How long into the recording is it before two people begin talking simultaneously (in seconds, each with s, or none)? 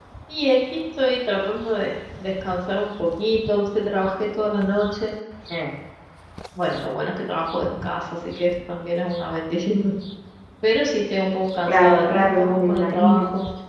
11.7 s